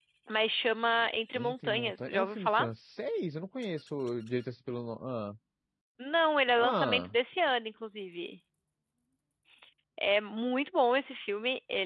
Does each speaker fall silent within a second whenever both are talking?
No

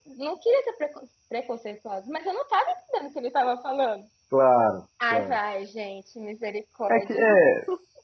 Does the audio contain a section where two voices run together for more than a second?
No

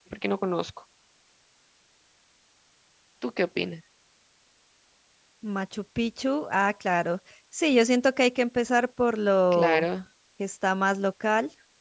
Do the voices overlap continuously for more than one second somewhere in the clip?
No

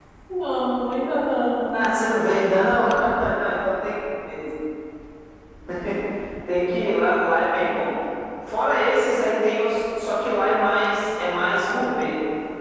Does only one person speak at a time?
Yes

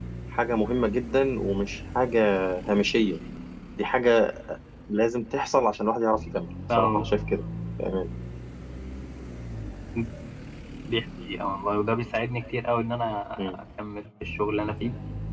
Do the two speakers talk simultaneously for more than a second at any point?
No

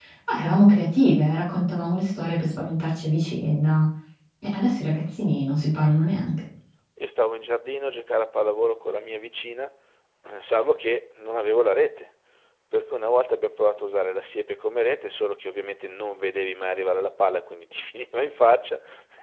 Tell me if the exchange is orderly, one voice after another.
Yes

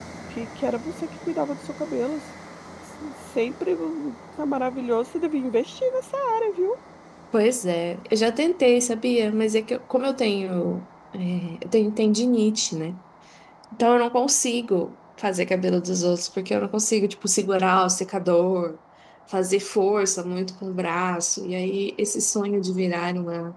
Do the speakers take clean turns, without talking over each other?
Yes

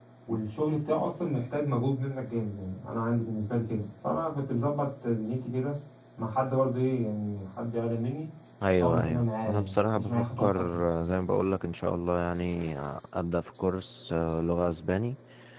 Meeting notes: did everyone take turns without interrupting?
No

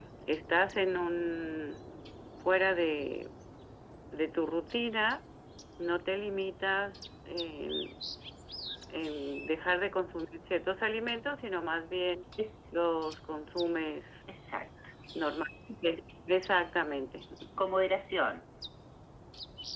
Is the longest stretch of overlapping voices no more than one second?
Yes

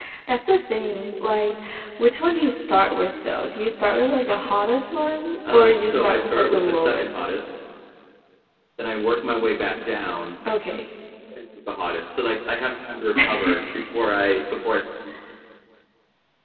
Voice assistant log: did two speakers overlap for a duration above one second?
Yes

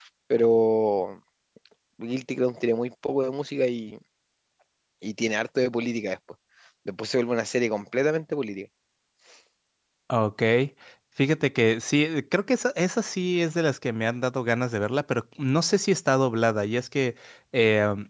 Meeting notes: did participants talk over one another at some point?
No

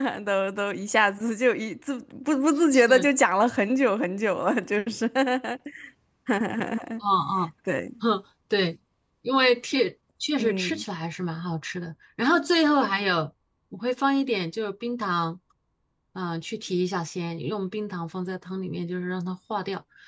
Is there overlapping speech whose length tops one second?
No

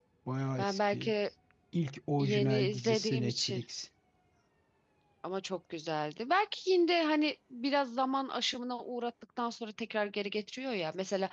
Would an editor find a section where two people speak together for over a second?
Yes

